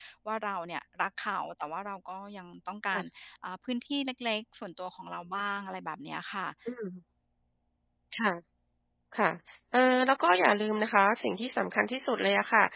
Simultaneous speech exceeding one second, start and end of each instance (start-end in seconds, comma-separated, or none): none